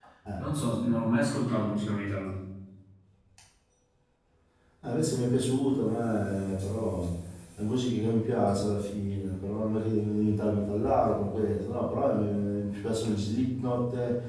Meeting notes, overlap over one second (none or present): none